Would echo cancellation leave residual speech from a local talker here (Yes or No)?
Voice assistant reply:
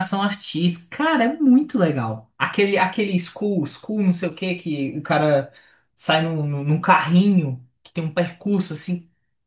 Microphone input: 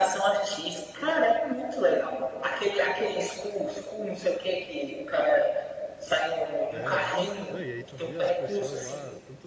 Yes